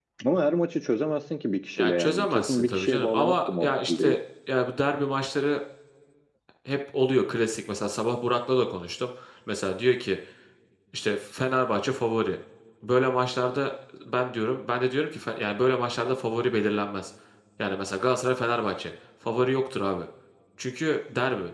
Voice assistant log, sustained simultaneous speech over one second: present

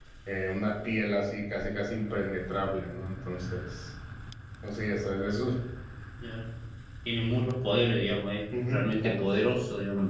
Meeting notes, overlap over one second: none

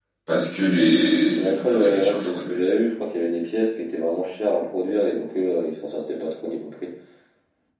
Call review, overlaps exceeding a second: present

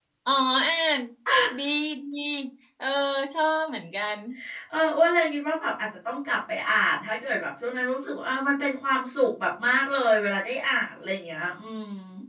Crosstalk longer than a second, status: none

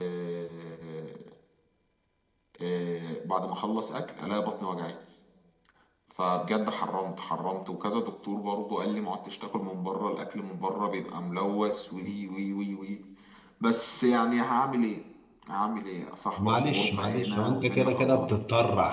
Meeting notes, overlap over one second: present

